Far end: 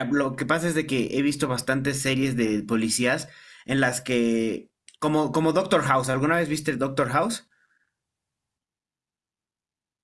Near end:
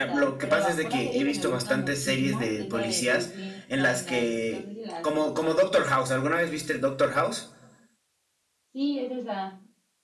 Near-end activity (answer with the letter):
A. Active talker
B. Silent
A